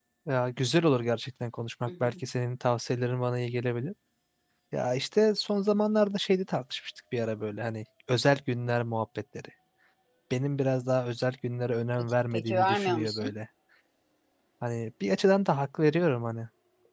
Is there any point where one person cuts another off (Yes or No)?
Yes